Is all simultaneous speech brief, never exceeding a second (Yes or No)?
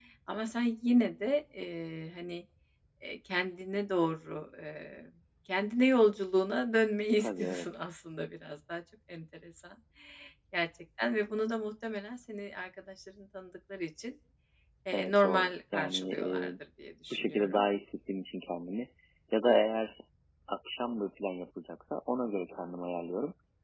No